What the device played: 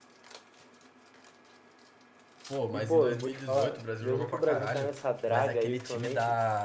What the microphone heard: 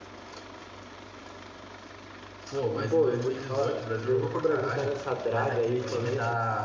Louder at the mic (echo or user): echo